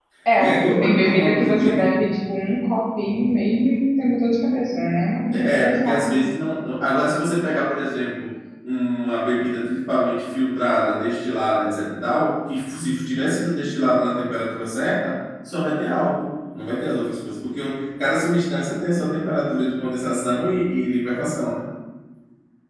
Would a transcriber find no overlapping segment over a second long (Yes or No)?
No